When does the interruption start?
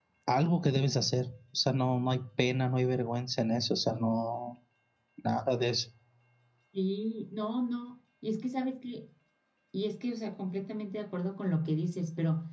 none

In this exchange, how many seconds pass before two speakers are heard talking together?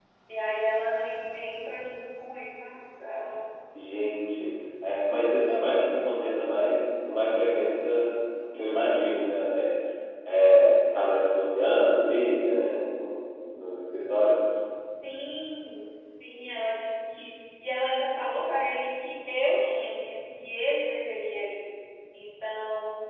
none

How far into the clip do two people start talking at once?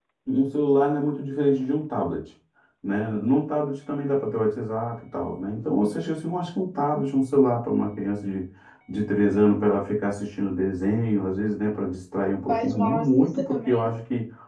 12 s

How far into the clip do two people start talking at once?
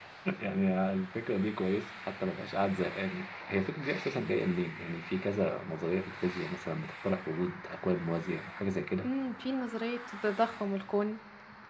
none

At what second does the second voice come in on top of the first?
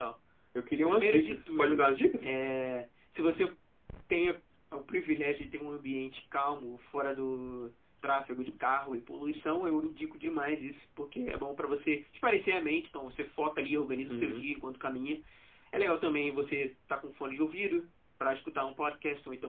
1 s

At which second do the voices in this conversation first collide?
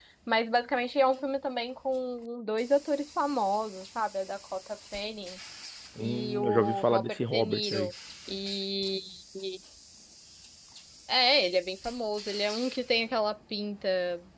6 s

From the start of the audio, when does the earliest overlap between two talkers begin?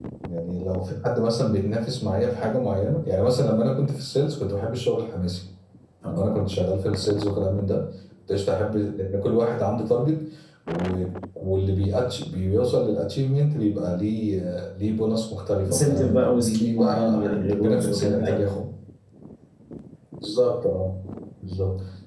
16 s

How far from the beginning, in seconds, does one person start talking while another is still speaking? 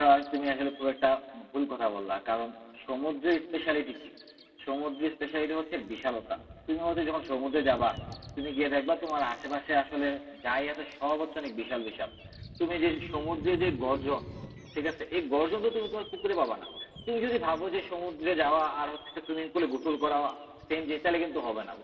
none

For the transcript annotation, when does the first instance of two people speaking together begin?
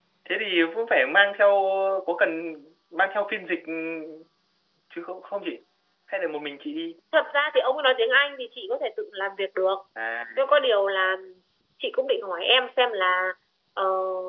none

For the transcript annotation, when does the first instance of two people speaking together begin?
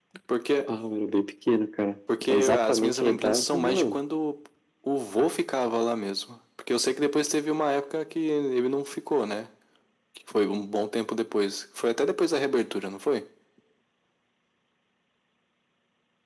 2 s

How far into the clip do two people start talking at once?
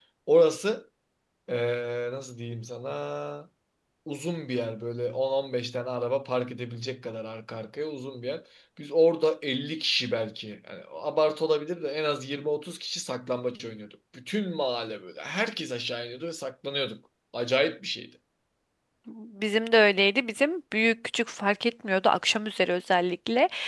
none

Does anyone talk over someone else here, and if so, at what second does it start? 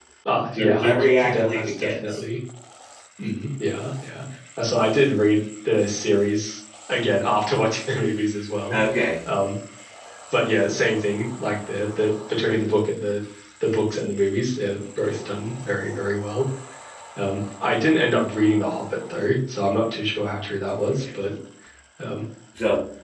1 s

